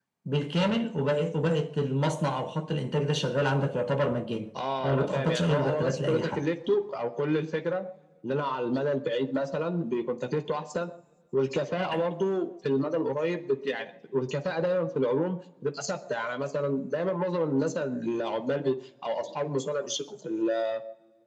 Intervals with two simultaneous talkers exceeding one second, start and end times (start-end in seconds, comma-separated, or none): 4.8-6.4